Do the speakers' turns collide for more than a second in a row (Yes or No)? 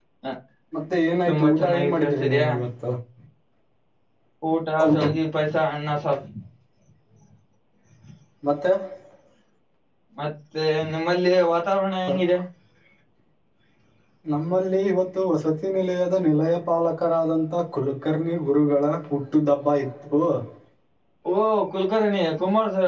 Yes